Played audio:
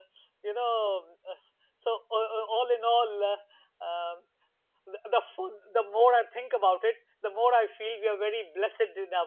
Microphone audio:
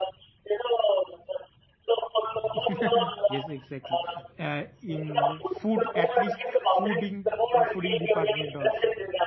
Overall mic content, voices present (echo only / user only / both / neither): both